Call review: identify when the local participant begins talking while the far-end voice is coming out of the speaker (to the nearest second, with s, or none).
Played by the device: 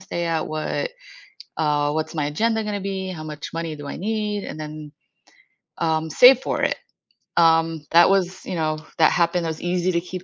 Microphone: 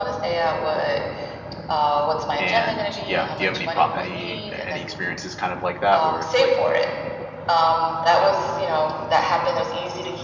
2 s